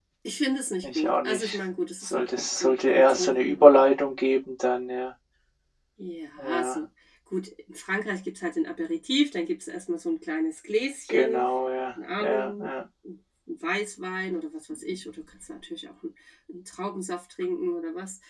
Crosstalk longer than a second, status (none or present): present